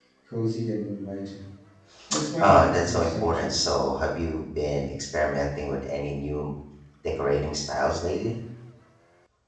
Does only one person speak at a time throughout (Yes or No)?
No